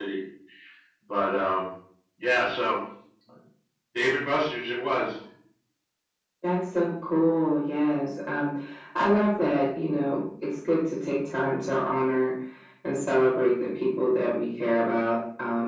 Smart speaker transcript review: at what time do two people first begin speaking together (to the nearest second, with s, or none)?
none